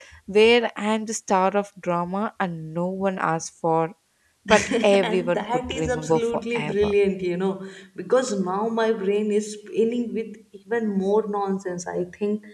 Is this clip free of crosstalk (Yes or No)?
No